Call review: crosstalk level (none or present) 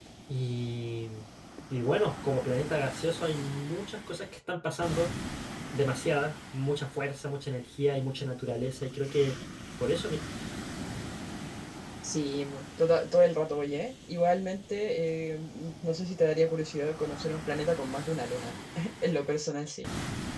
none